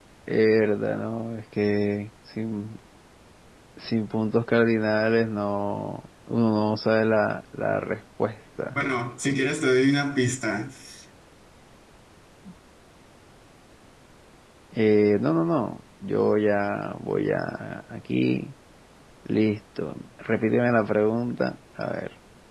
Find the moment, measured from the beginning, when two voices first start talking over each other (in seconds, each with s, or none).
none